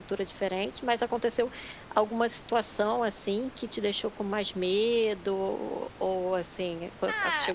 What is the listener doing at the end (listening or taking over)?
taking over